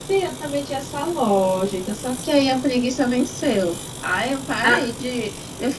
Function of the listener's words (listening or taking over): listening